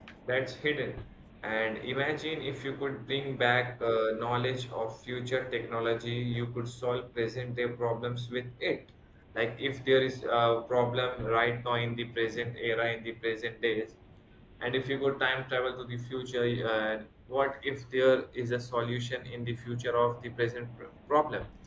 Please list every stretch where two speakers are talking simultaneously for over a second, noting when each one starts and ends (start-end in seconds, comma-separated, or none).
none